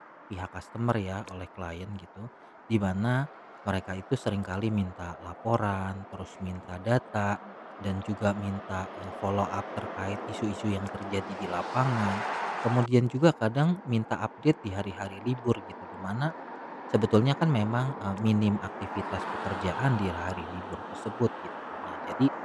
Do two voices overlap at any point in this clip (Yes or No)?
No